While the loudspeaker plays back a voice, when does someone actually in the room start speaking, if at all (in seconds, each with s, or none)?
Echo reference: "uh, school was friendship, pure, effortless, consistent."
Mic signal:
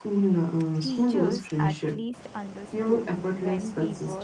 0.8 s